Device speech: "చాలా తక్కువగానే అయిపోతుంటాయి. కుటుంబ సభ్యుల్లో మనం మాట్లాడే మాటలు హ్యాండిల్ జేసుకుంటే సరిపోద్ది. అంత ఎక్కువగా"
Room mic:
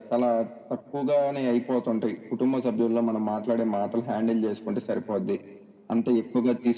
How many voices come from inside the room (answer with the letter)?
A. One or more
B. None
B